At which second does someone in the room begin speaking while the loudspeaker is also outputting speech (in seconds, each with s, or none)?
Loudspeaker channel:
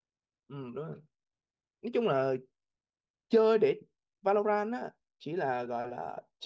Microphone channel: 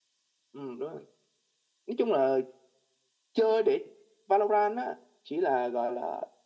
none